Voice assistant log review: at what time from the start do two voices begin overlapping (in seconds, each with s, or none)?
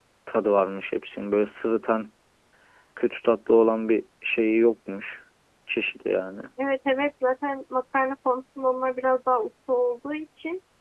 none